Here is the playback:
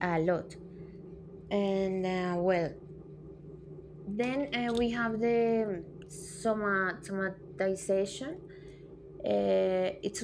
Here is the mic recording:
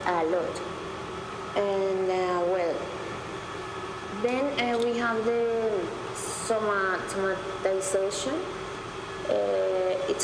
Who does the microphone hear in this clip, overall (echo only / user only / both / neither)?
echo only